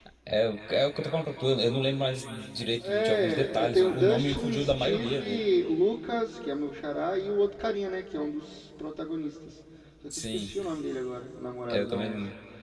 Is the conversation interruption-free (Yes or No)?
No